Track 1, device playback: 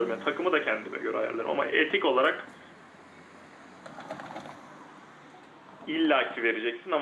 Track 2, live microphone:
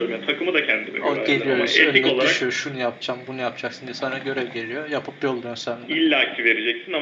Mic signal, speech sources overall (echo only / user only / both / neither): both